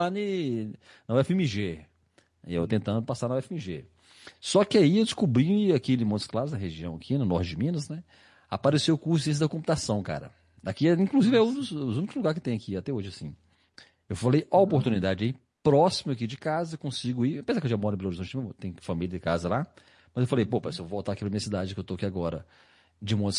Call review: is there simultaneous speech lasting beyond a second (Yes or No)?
No